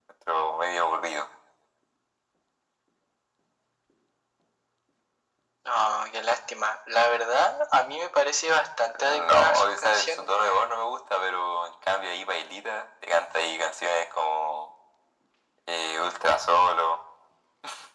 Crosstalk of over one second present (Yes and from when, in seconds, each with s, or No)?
Yes, from 8.9 s